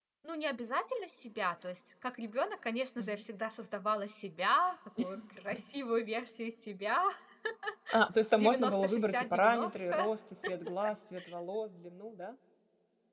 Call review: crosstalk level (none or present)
present